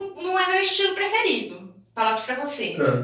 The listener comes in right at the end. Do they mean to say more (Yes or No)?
No